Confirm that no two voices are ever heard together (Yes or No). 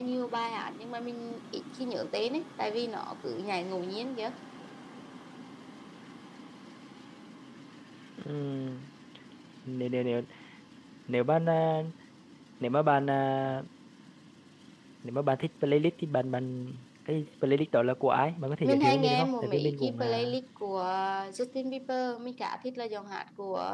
No